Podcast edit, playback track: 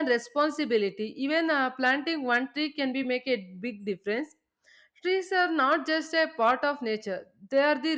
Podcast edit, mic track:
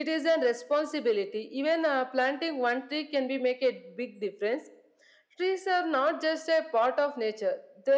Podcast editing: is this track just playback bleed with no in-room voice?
Yes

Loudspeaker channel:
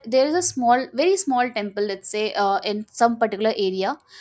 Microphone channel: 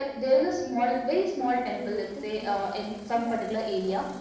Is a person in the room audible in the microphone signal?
Yes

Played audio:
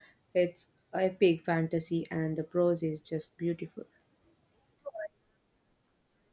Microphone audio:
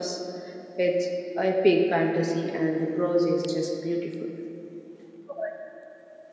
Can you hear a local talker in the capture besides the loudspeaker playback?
No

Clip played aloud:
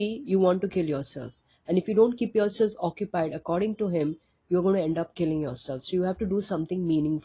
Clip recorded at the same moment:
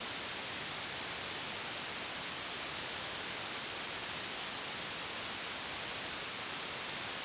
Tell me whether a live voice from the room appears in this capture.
No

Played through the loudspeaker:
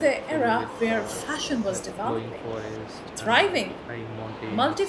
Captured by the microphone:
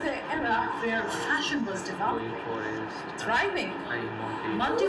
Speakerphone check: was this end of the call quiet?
No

